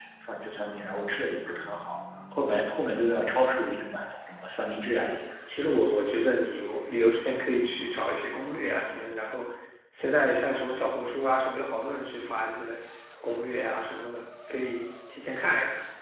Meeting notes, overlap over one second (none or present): none